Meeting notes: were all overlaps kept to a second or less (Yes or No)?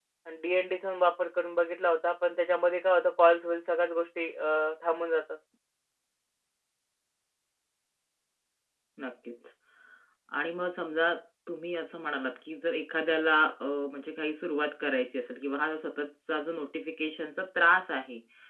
Yes